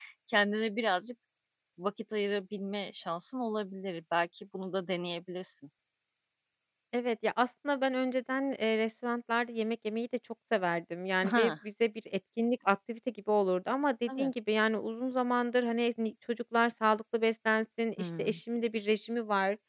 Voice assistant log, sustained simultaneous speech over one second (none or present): none